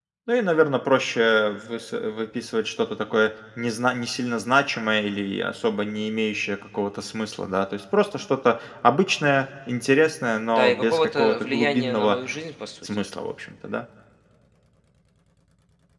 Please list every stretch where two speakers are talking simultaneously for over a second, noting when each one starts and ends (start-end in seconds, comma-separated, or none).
10.6-12.2